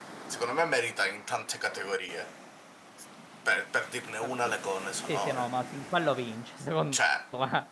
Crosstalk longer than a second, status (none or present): none